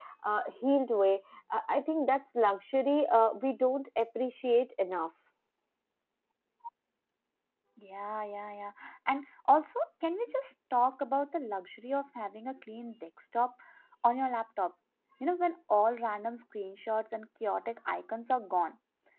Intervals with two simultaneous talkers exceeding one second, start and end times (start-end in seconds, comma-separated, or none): none